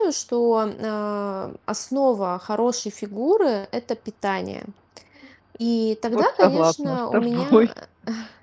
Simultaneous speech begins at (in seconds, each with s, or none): 6.1 s